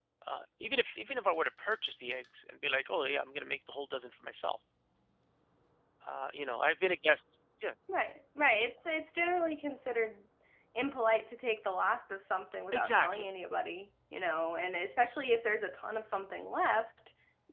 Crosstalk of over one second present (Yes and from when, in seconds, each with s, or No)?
No